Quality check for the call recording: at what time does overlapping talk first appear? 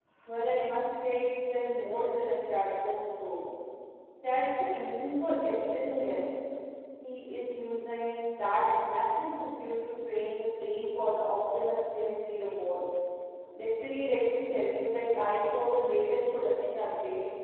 none

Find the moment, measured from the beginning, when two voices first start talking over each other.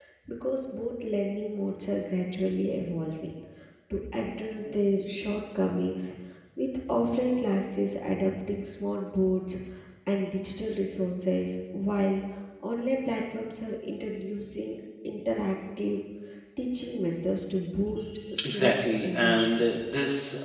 18 s

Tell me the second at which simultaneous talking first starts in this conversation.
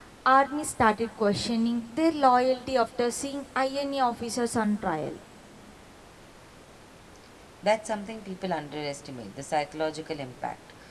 none

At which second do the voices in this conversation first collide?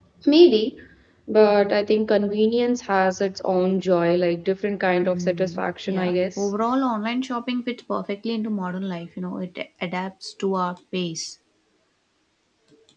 5 s

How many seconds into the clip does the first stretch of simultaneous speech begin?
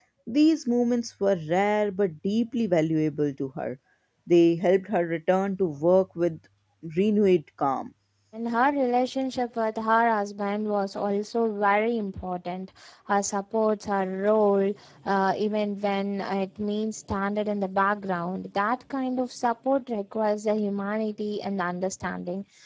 none

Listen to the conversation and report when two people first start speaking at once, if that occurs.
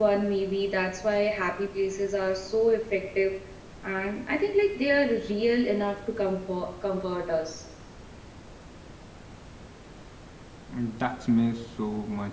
none

